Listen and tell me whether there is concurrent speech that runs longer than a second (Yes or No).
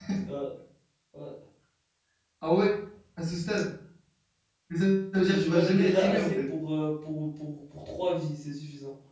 Yes